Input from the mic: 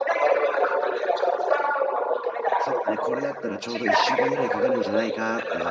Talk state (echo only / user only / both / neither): both